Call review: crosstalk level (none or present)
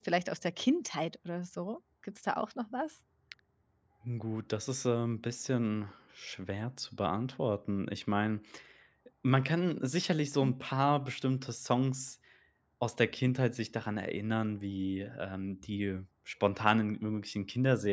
none